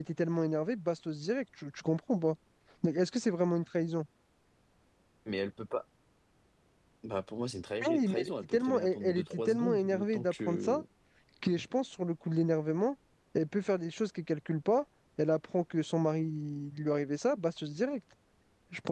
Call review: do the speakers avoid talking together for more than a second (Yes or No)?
No